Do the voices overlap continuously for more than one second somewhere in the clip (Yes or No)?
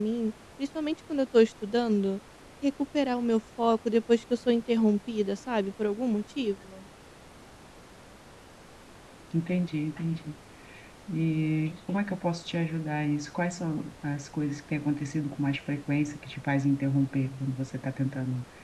No